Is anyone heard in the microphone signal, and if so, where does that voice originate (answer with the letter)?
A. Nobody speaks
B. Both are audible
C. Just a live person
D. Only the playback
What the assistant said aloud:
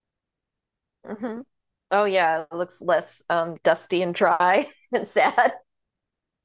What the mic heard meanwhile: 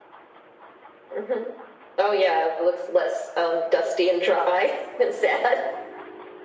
D